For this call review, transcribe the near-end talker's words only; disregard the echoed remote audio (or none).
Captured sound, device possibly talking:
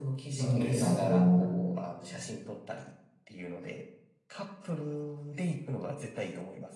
なのでそこ、